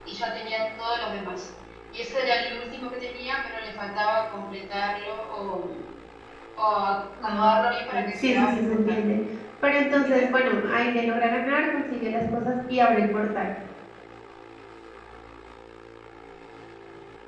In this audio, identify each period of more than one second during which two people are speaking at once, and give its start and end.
7.2-8.8

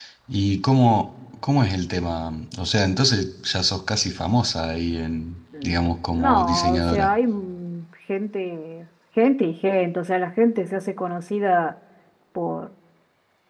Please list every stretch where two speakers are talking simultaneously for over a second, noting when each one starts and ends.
5.6-7.1

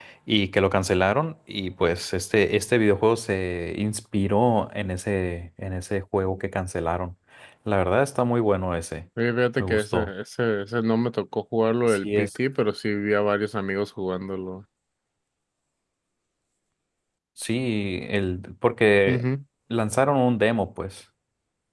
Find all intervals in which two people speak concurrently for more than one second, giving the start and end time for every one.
none

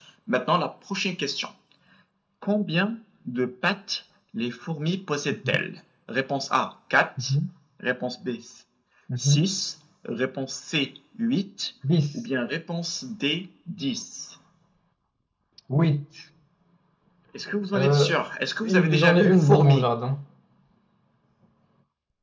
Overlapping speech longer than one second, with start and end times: 18.6-19.9

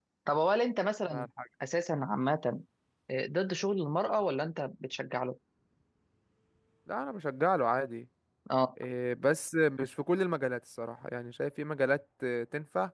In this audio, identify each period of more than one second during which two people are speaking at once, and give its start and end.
none

